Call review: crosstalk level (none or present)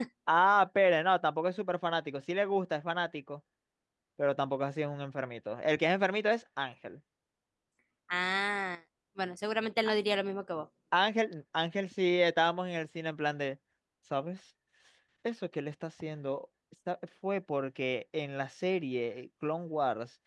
none